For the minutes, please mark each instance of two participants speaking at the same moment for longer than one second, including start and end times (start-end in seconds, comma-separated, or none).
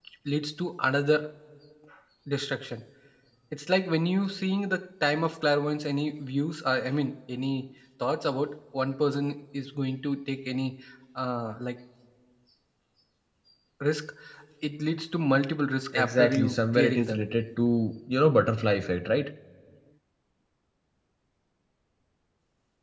16.0-17.2